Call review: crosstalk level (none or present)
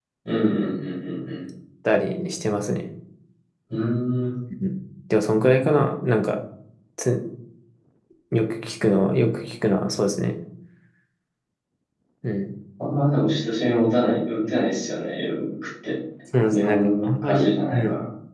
present